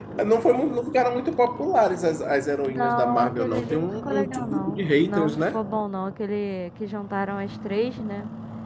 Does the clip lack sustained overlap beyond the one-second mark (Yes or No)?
No